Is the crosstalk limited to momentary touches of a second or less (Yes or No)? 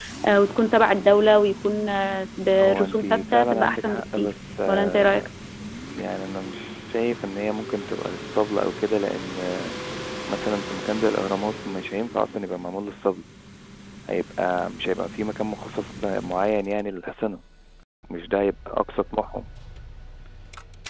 No